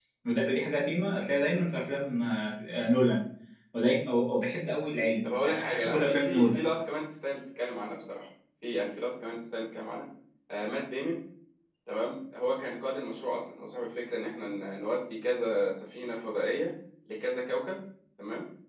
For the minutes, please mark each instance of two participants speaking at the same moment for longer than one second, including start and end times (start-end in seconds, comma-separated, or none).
5.2-6.6